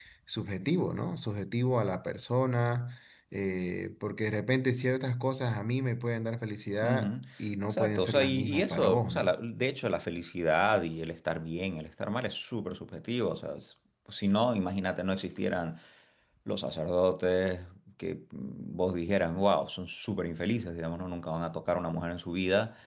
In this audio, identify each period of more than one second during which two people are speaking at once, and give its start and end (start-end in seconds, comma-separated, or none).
7.7-9.4